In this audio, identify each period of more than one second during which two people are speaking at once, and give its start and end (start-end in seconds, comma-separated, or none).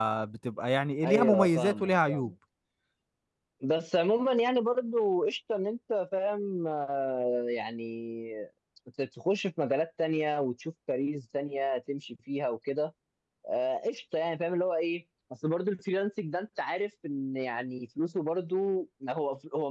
1.1-2.3